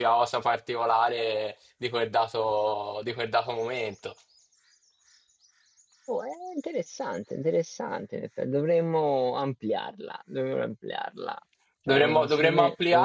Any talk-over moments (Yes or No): Yes